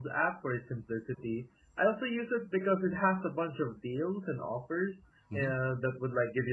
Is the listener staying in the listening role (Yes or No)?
Yes